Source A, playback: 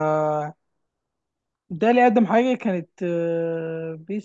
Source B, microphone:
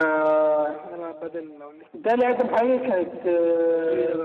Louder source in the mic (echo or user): echo